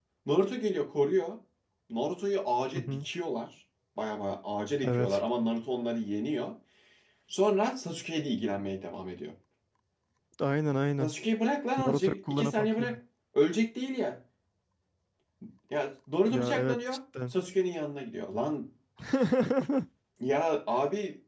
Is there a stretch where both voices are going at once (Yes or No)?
Yes